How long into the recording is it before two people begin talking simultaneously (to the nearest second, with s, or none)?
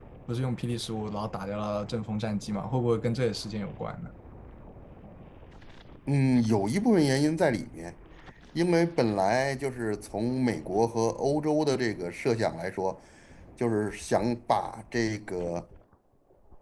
none